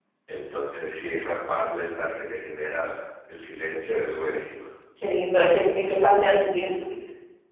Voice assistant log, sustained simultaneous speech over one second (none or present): none